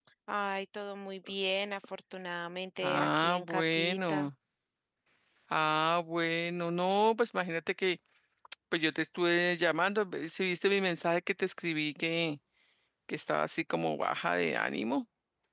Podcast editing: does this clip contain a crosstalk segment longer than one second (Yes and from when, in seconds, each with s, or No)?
Yes, from 2.8 s